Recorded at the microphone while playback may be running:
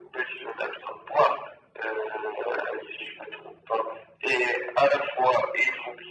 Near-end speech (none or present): none